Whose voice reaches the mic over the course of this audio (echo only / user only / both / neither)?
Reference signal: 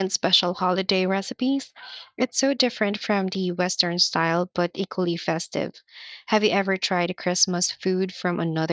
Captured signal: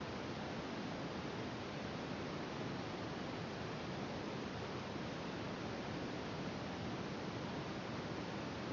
neither